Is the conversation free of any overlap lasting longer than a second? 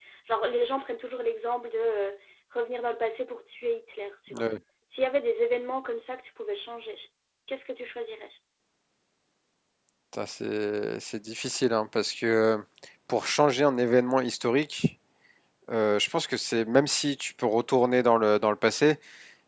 Yes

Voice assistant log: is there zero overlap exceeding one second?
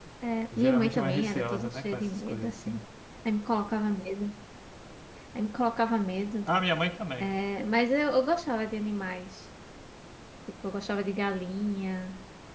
No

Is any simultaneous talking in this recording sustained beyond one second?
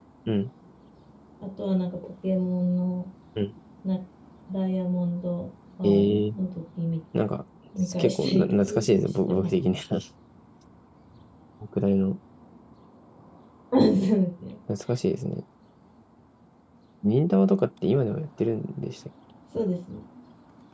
Yes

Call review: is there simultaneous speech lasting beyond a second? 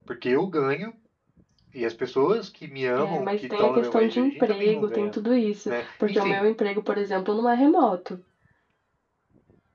Yes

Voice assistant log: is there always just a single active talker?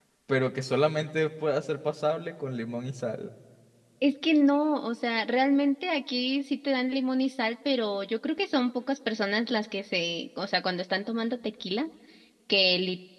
Yes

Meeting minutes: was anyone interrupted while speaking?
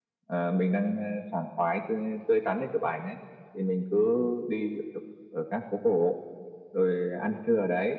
No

